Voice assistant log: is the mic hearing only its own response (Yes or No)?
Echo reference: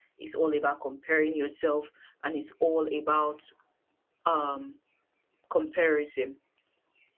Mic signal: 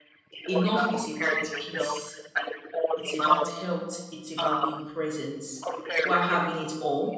No